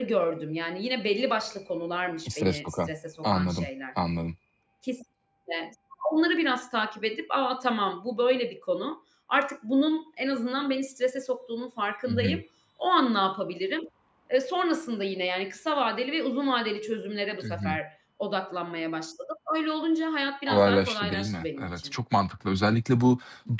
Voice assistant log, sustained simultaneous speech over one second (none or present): present